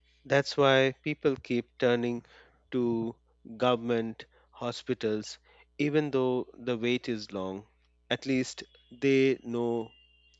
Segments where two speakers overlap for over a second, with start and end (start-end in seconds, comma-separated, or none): none